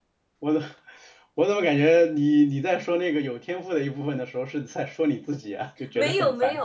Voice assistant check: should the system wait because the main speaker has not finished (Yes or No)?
No